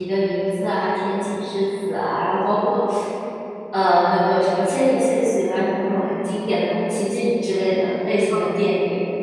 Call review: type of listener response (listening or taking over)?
taking over